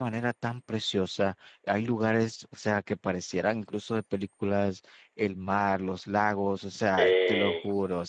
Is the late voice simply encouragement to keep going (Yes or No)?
Yes